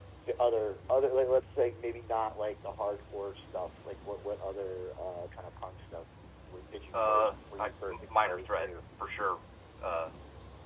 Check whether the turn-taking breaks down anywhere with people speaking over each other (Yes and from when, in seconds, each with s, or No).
Yes, from 6.9 s